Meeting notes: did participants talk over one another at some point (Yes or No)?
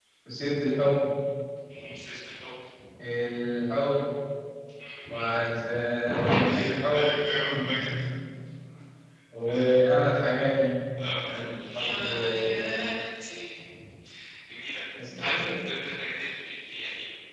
Yes